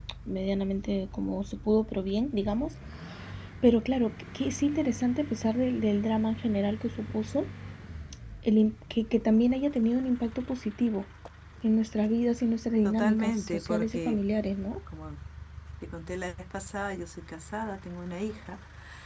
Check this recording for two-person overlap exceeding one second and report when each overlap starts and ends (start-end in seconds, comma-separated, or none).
12.8-14.2